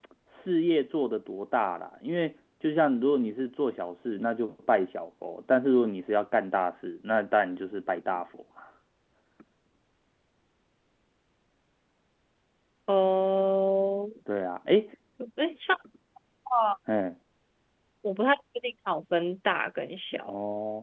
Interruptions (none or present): none